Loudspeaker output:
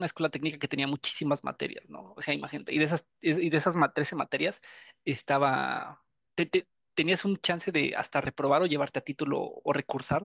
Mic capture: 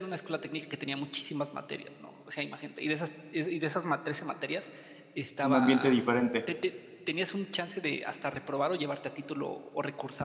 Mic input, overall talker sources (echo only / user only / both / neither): both